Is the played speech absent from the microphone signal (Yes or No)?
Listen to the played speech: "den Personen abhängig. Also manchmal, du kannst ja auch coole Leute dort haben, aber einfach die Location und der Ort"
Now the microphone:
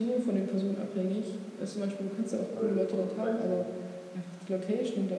No